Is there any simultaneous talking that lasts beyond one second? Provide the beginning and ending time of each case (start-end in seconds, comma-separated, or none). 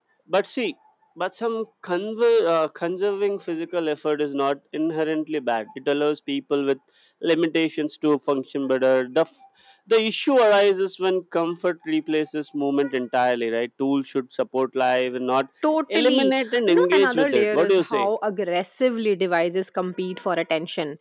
15.9-18.1